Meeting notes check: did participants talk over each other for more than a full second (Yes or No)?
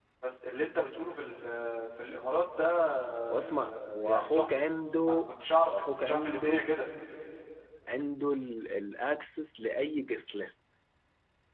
Yes